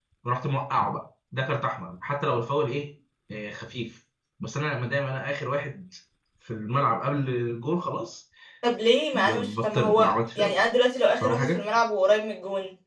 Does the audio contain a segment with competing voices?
Yes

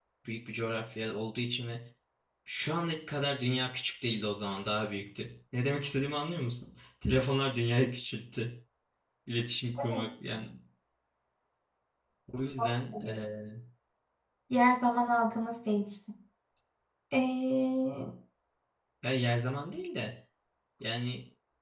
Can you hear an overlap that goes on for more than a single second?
No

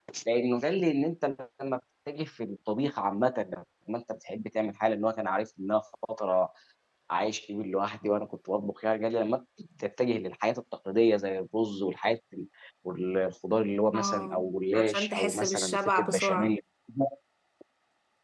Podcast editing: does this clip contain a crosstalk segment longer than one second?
Yes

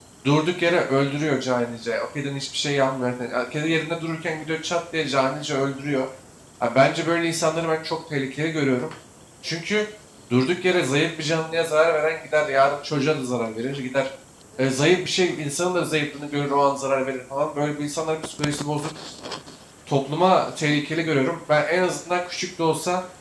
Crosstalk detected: No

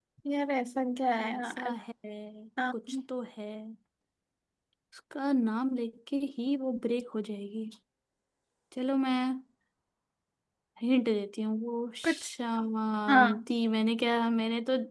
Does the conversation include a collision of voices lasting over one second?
No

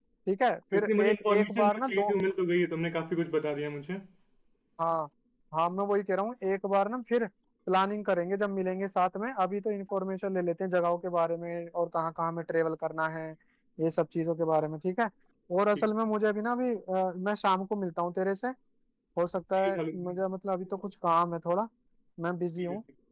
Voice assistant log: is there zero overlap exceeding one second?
No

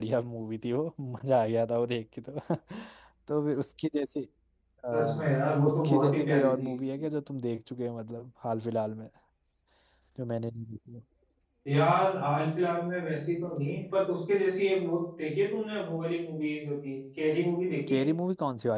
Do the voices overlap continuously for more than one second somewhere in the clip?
Yes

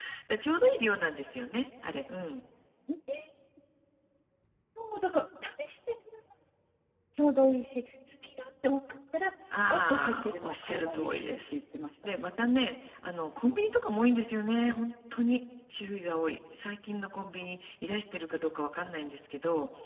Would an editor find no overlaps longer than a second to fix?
No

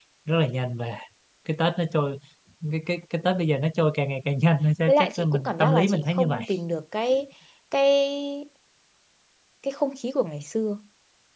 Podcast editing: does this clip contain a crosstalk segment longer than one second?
Yes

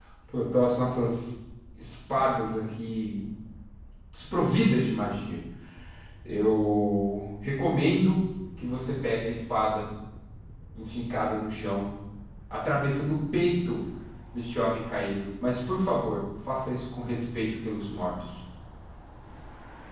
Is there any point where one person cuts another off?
No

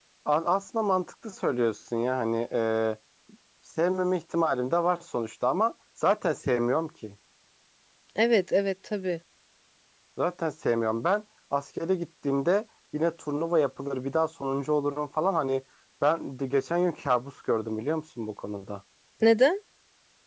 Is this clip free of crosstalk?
Yes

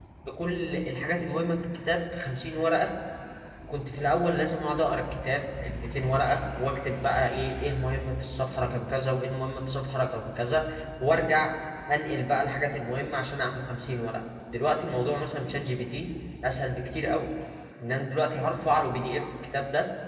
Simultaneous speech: No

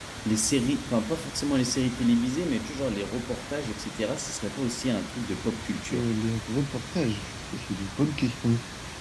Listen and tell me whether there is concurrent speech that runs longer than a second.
No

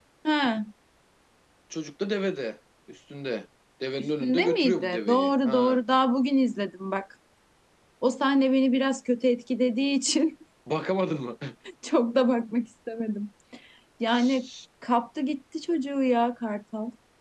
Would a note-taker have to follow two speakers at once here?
Yes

